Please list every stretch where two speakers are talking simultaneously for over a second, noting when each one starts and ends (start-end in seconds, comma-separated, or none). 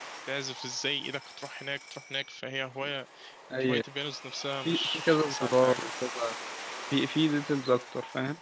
4.6-5.9